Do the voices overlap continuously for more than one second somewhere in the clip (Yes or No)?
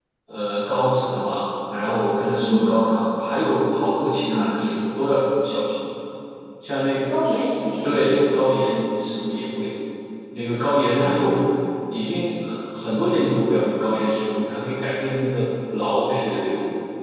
No